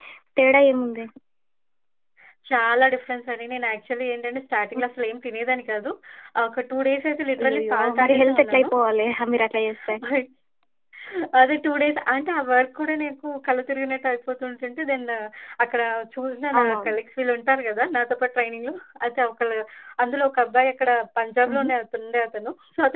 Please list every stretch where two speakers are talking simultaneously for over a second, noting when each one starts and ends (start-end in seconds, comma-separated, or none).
7.4-8.7